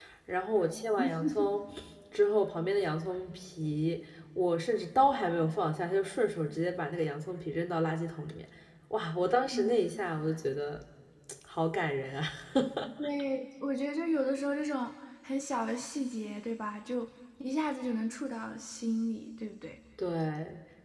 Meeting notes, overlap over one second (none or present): none